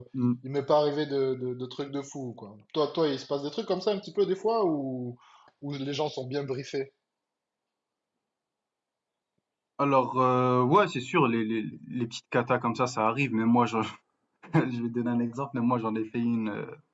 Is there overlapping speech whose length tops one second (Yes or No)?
No